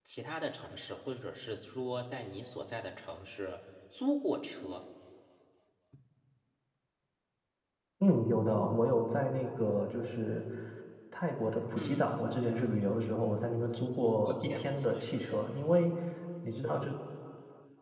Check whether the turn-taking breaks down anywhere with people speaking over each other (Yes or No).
Yes